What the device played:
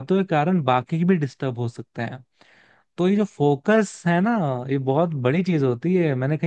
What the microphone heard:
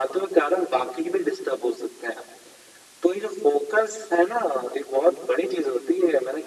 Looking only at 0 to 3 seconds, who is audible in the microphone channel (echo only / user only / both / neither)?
echo only